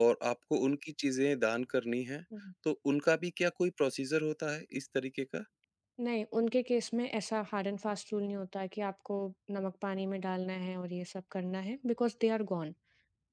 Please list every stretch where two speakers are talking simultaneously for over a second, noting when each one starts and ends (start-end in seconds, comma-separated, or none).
none